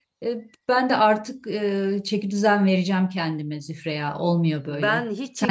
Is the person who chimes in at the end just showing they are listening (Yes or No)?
No